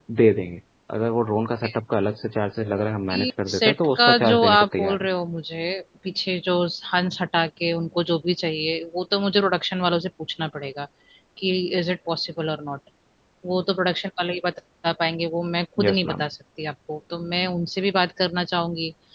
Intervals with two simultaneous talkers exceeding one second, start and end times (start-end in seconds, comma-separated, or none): 3.1-5.1